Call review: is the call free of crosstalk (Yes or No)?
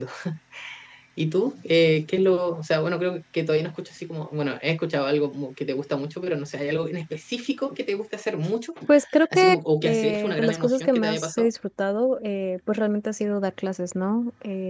No